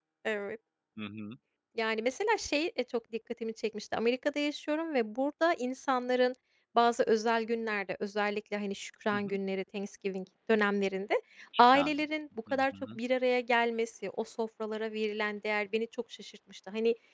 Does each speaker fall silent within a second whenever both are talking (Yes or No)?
Yes